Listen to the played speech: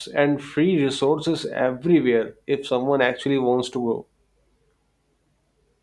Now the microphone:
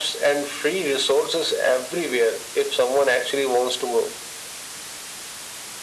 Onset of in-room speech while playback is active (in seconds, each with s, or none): none